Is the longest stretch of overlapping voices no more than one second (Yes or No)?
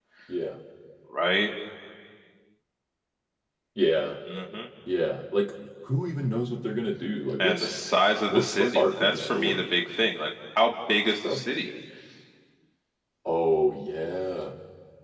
No